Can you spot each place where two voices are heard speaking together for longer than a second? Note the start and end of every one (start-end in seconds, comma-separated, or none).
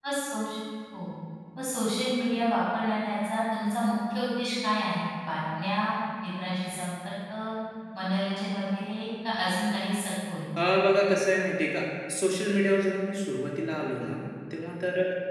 none